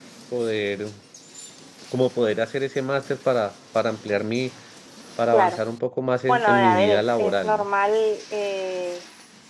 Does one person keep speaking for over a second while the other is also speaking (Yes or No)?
Yes